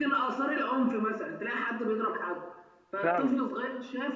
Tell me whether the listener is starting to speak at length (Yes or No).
No